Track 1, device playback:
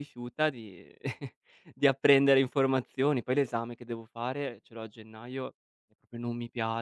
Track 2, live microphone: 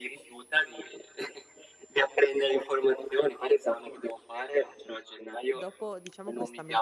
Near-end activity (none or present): present